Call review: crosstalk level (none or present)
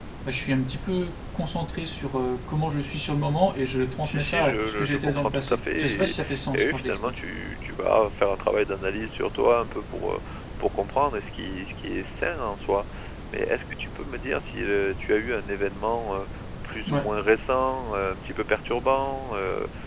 present